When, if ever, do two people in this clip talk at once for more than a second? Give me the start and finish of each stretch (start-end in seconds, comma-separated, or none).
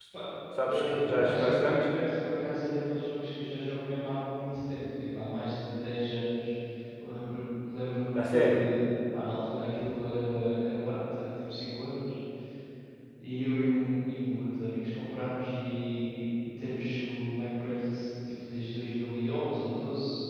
0.7-1.9